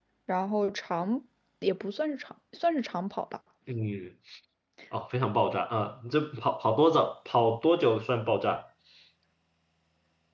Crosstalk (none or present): none